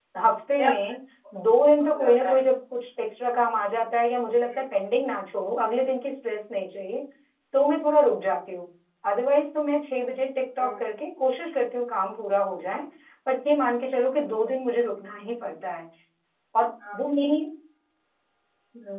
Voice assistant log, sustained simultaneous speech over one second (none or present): none